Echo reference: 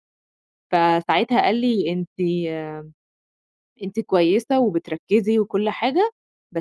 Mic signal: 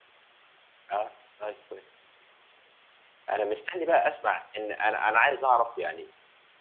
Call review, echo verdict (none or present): none